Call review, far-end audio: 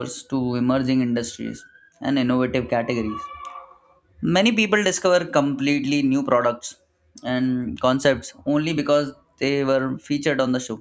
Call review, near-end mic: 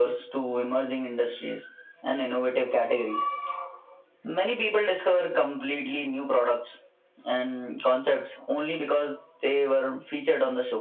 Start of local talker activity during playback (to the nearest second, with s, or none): none